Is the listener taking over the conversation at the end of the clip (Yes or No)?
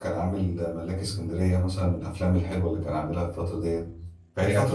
No